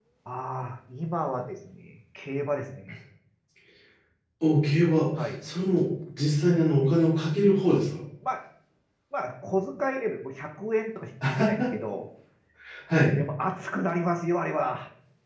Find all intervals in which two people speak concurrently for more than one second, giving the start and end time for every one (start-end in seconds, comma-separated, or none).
none